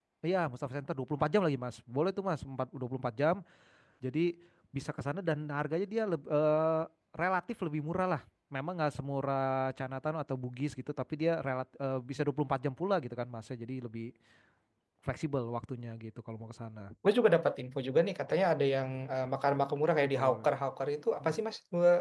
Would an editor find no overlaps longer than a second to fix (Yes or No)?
Yes